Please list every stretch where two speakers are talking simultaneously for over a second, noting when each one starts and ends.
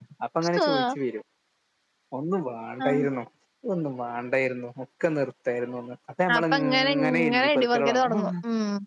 6.4-8.2

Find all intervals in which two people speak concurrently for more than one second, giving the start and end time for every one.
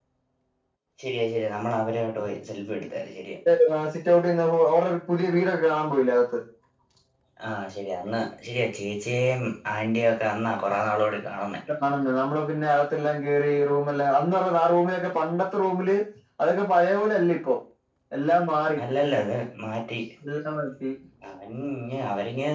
none

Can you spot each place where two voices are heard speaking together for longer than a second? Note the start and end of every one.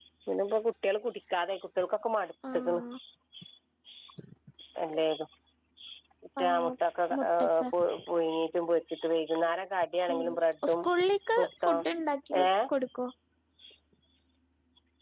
none

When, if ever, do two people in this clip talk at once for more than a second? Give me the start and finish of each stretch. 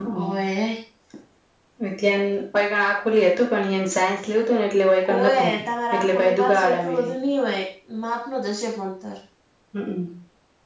5.9-7.1

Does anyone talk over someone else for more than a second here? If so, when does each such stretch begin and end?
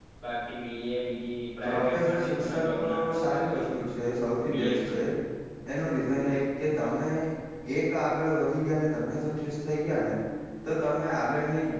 1.6-3.6

